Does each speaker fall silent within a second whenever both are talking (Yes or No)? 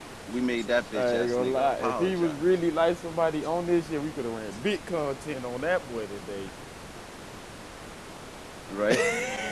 No